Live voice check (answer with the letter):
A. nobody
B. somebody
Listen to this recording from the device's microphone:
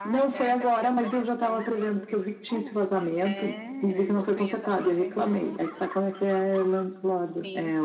B